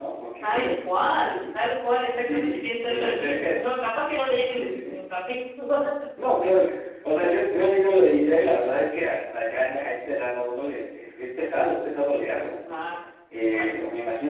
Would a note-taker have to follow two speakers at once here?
Yes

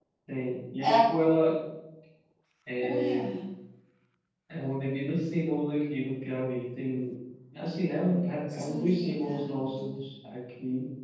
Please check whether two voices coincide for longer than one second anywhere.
Yes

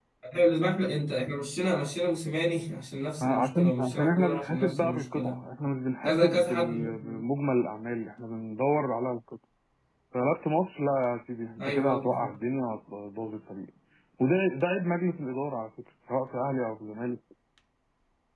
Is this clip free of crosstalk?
No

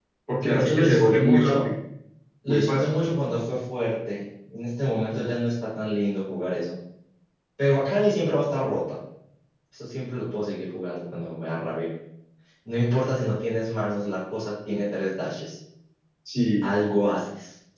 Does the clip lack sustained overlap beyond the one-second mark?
No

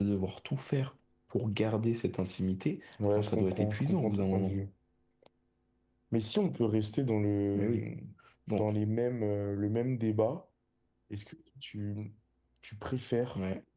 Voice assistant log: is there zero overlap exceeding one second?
No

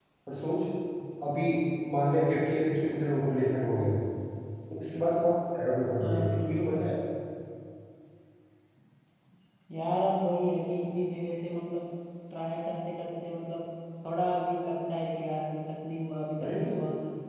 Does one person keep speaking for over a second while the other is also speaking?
No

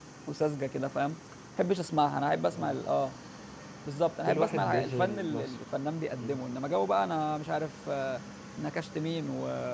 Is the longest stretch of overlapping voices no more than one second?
No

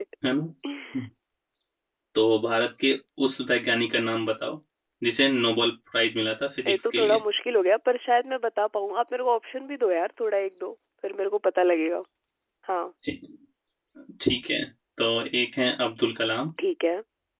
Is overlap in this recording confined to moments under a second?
Yes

